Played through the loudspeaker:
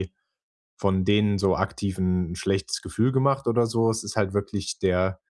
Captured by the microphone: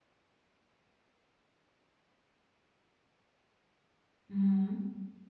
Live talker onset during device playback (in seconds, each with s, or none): 4.3 s